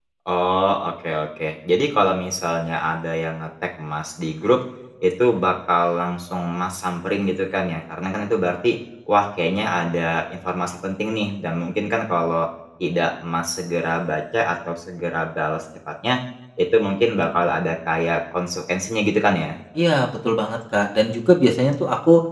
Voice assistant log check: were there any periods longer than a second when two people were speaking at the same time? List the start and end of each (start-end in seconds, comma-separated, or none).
none